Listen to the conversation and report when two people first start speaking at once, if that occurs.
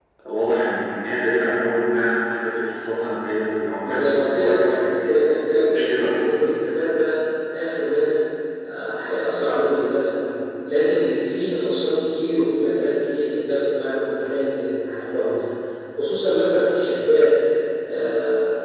3.8 s

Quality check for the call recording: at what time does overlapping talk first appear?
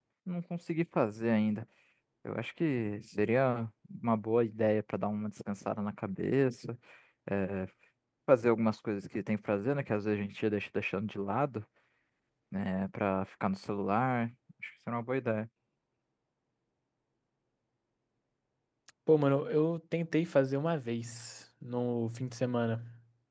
none

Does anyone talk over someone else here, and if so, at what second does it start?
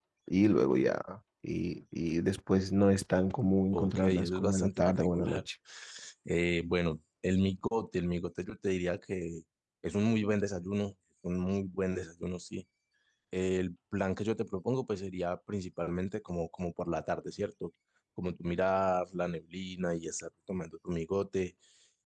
3.7 s

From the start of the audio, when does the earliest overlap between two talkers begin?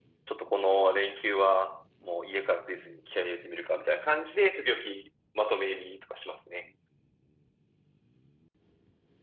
none

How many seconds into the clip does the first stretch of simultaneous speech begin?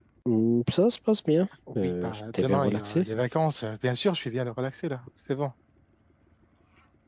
1.7 s

